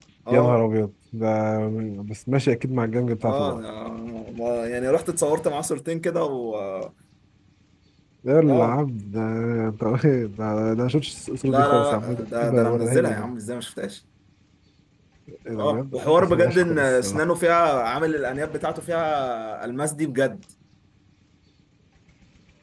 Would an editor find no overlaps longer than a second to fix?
No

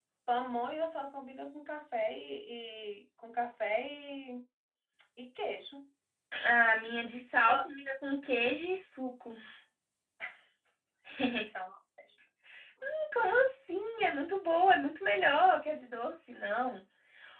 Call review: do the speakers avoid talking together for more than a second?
Yes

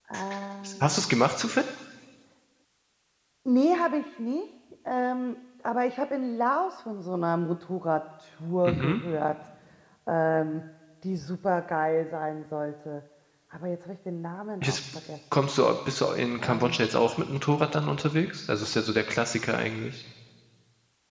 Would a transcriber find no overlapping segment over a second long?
Yes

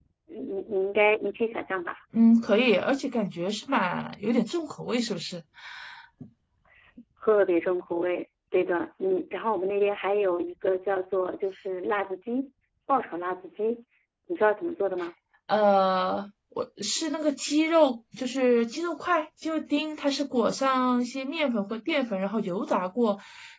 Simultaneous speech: No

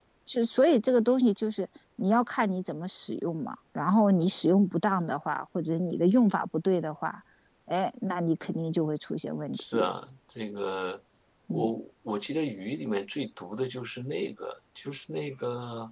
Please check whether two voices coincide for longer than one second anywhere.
No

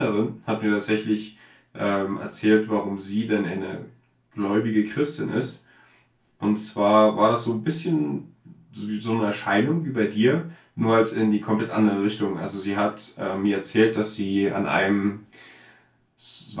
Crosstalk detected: No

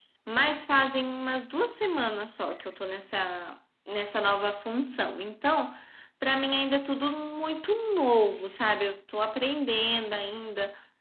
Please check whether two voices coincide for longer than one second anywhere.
No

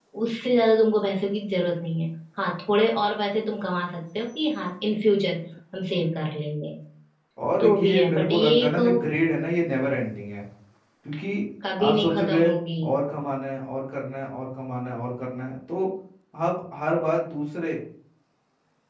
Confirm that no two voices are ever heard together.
No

